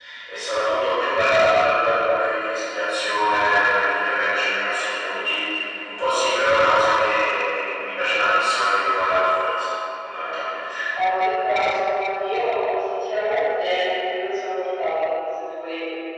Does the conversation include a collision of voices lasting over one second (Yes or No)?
No